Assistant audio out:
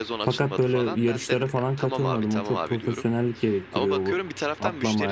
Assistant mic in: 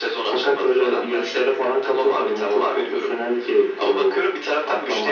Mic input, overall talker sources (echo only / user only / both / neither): echo only